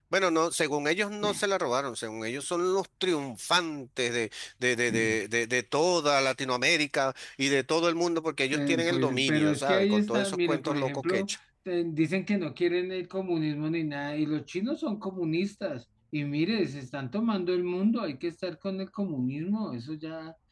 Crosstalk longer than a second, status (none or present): present